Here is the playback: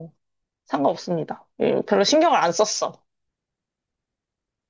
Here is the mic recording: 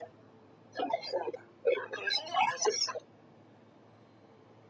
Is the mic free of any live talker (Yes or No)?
Yes